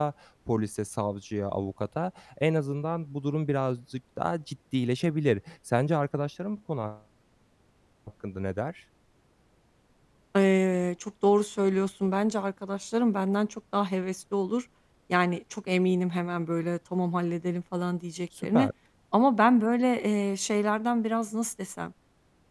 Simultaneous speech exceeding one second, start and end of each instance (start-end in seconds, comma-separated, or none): none